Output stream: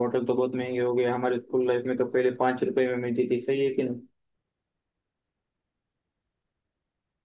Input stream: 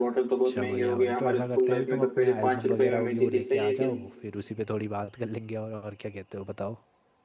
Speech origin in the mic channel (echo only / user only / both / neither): both